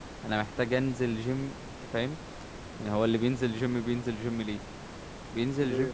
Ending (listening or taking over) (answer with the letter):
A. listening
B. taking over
A